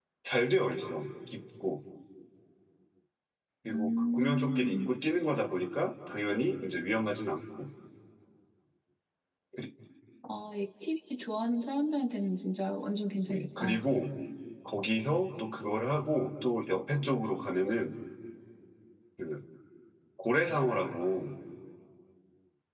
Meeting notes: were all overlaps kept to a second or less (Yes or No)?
No